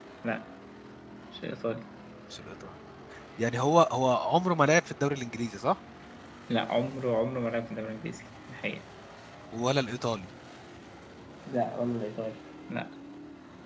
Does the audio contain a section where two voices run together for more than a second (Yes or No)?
No